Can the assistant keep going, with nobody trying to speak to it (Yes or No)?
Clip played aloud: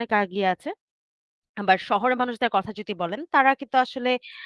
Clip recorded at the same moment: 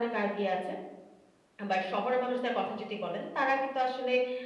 Yes